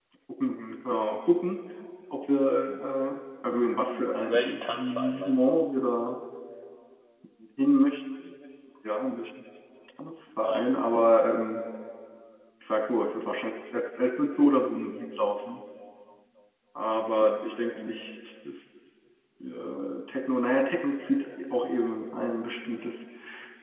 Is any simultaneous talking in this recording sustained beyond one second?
Yes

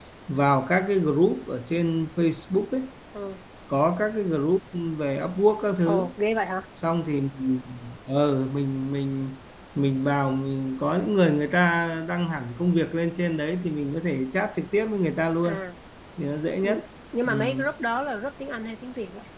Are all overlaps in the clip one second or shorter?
Yes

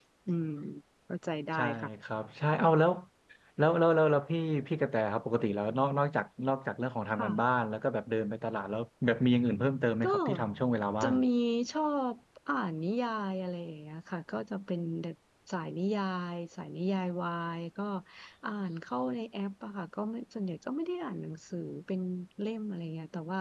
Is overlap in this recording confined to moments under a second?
Yes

